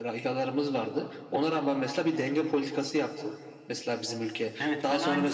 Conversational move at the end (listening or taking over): taking over